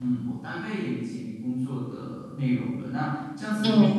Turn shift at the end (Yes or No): No